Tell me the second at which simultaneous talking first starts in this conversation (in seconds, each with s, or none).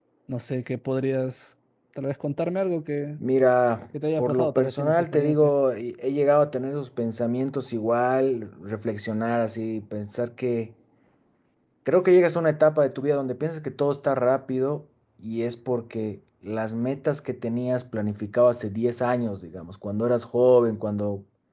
4.2 s